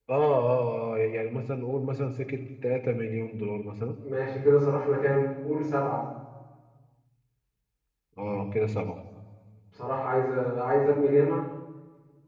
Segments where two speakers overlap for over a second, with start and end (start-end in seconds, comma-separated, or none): none